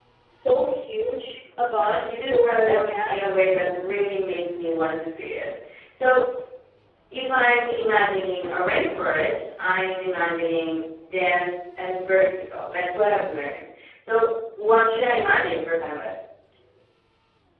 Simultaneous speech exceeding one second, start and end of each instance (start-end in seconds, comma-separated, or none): 1.8-3.2